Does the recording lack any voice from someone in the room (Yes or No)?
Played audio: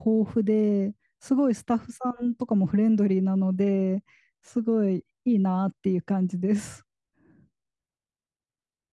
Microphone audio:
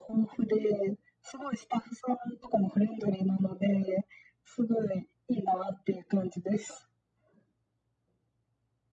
Yes